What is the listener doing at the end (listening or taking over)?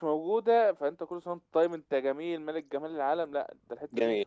taking over